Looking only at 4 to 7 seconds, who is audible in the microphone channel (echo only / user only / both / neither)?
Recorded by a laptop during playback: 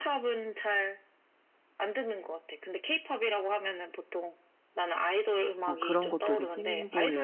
both